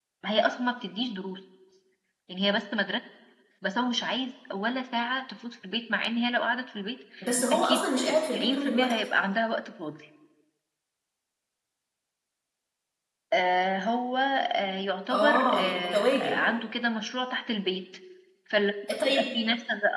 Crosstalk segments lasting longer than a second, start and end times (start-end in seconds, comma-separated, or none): 7.5-8.9, 15.1-16.4